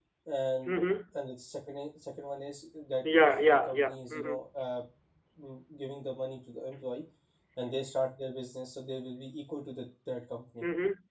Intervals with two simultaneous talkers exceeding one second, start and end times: 3.0-4.3

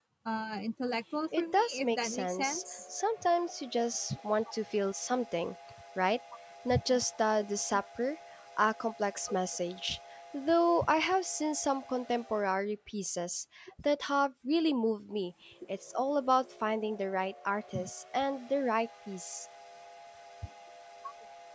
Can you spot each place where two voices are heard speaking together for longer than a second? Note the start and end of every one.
1.4-2.6

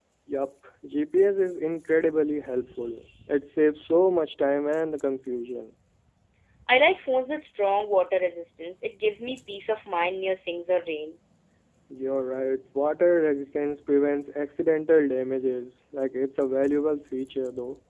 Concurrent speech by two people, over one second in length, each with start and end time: none

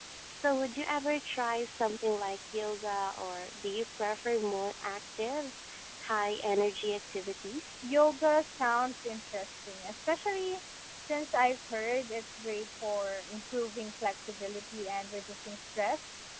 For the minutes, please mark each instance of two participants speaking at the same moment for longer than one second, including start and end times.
none

